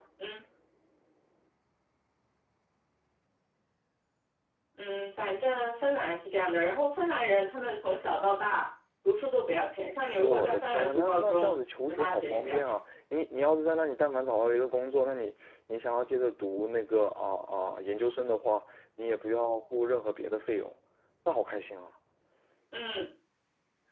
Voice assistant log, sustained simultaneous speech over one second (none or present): present